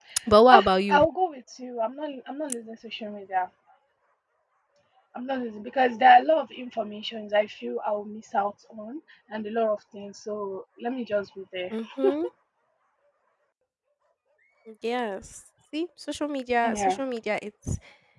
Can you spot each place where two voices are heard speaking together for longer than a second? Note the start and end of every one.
none

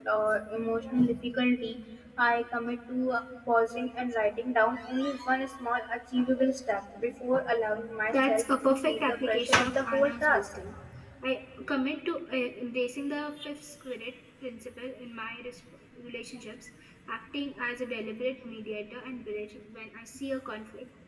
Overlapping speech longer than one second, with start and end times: 8.1-10.6

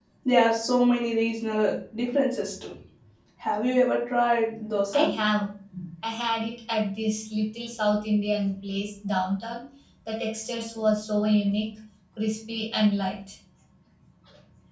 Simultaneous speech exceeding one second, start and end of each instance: none

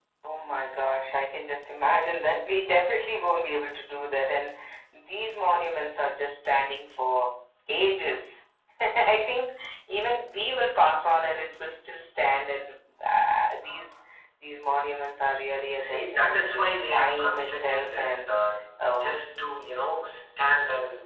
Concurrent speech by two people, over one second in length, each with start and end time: 15.8-18.4

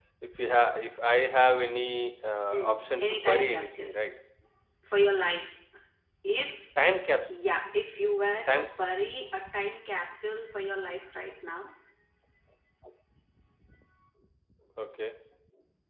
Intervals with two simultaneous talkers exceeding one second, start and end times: 2.5-3.9

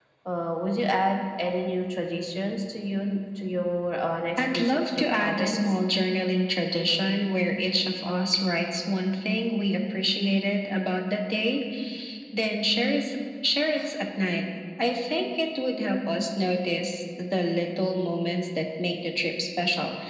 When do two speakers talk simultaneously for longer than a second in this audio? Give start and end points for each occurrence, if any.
4.4-5.8

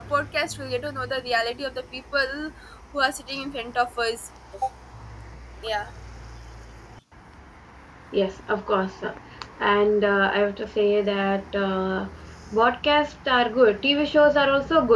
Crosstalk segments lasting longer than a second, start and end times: none

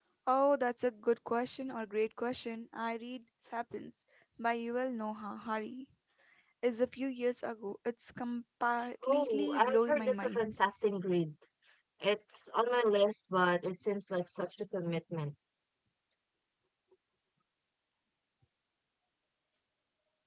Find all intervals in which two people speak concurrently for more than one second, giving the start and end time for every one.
9.0-10.6

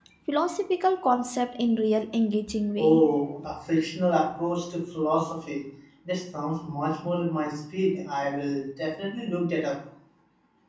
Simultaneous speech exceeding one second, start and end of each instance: none

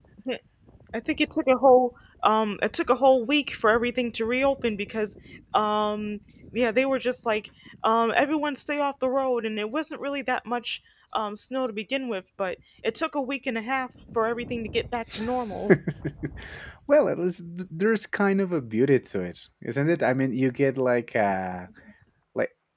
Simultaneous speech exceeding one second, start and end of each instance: none

